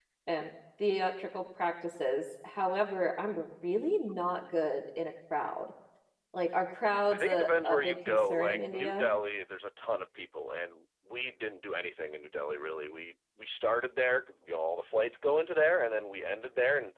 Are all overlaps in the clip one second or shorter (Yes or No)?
No